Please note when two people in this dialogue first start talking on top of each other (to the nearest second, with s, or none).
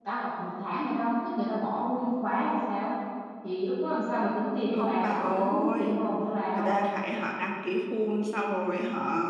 5 s